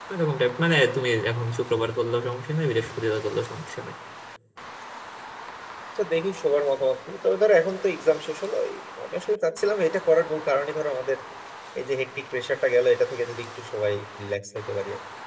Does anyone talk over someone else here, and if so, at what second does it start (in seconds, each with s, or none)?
none